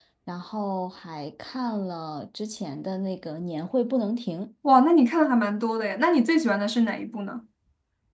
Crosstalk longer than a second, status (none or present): none